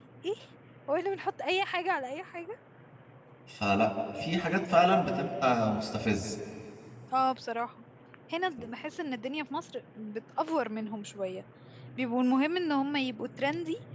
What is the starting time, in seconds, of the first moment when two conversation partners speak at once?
none

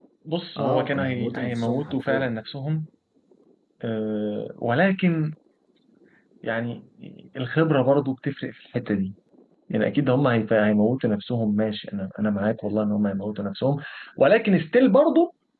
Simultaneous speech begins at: 0.6 s

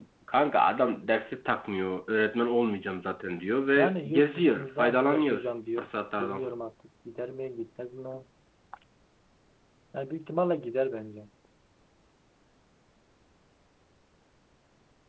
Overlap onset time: 3.8 s

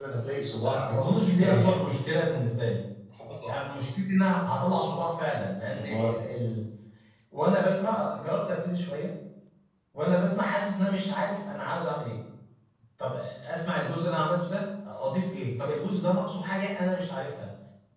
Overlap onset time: 0.7 s

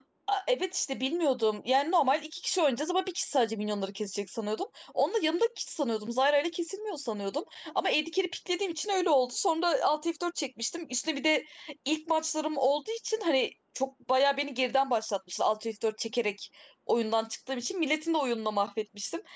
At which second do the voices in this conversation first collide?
none

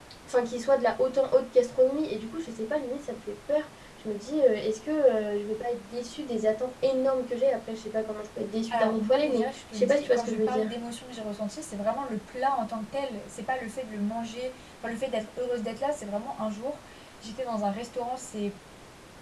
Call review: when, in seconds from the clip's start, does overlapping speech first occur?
8.7 s

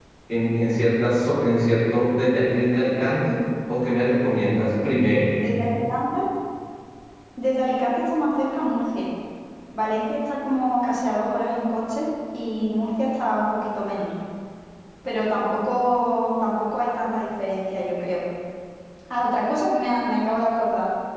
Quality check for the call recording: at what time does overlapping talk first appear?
none

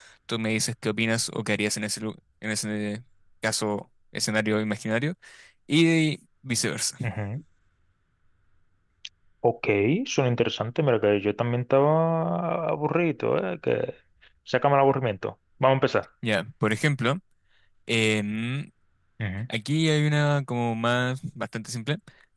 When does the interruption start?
none

